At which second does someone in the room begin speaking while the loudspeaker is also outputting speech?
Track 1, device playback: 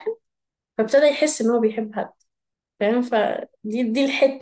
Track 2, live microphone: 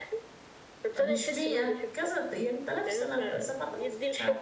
1.0 s

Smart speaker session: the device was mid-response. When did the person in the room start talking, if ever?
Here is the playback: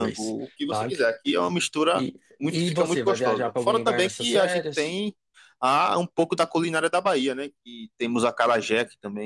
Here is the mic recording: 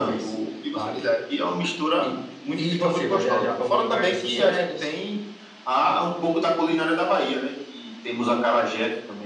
none

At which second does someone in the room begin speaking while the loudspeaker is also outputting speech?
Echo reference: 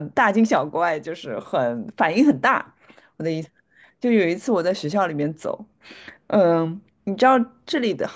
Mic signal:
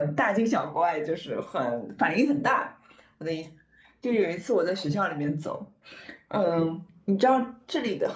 none

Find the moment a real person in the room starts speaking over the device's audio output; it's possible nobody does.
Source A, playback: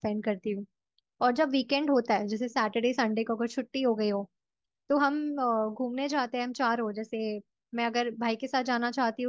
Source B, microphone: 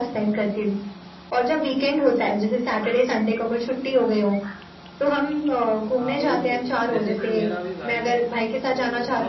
6.0 s

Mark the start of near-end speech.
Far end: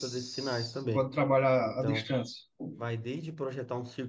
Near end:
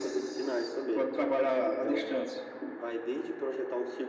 none

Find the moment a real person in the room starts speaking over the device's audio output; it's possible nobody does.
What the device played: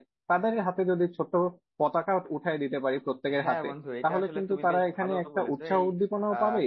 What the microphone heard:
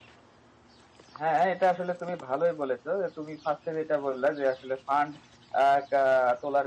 1.2 s

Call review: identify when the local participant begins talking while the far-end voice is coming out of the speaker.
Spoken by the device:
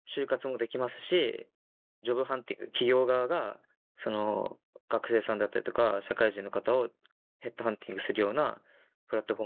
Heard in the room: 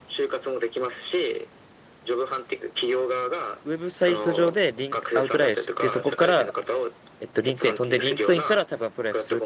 3.6 s

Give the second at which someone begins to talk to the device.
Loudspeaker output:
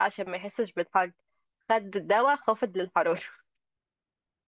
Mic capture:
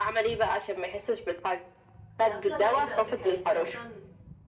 2.2 s

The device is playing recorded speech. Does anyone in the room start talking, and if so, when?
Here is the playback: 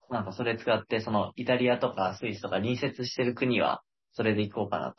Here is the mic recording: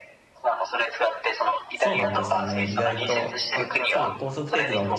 1.7 s

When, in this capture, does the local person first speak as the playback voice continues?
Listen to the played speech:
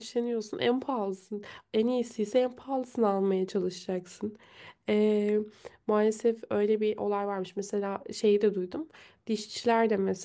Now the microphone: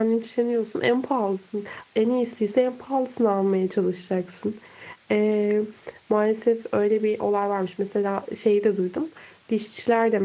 none

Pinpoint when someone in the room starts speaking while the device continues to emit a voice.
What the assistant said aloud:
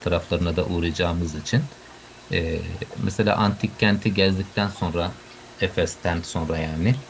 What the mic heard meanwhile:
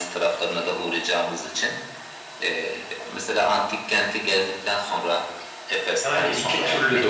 6.0 s

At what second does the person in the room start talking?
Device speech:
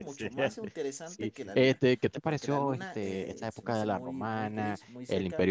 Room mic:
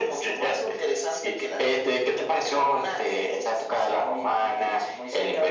none

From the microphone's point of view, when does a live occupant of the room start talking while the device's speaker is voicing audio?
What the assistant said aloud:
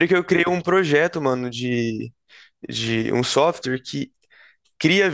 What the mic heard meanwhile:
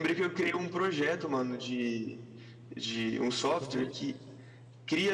3.6 s

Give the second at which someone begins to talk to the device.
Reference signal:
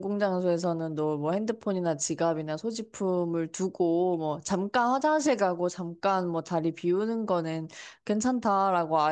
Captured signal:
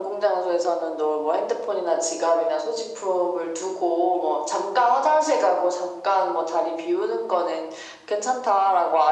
none

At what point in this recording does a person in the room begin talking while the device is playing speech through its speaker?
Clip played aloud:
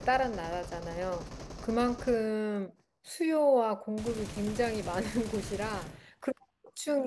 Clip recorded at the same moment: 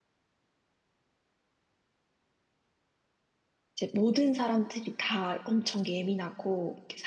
3.8 s

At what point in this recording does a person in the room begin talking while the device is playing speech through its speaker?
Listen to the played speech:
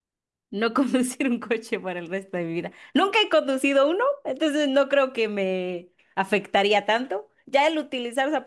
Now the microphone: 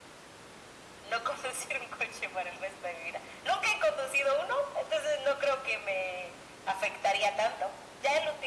none

